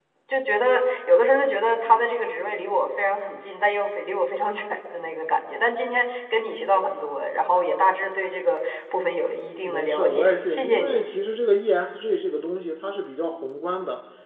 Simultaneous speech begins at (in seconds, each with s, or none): 9.6 s